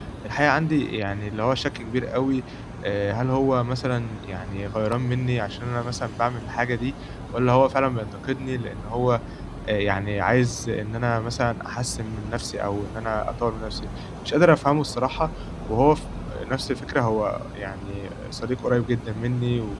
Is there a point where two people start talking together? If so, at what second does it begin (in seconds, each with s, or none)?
none